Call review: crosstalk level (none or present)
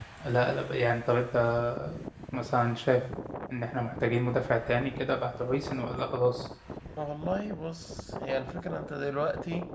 none